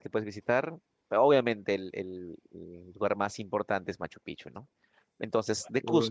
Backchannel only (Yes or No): Yes